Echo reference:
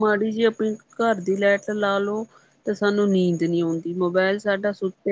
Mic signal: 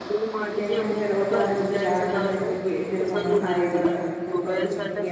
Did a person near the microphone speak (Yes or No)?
Yes